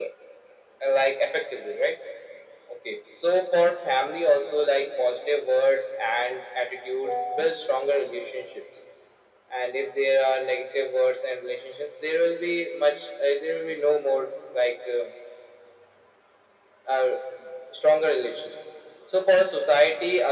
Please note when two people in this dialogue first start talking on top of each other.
none

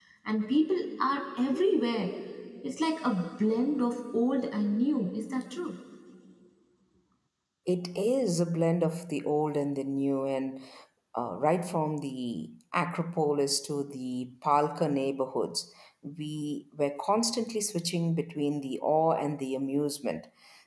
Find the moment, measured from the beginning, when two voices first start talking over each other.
none

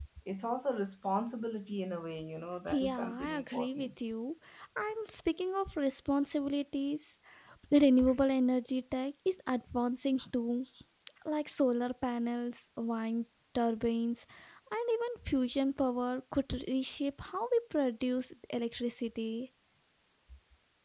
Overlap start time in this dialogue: 2.7 s

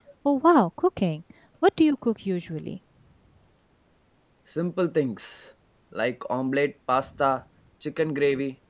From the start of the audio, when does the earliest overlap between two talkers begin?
none

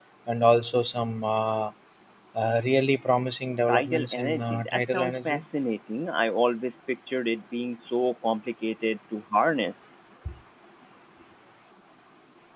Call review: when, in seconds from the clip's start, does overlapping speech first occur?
3.7 s

